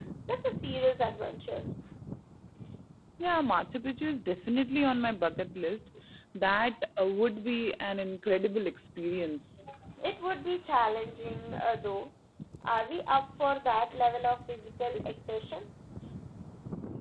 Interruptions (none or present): none